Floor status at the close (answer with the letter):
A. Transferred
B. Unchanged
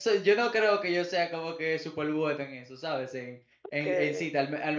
B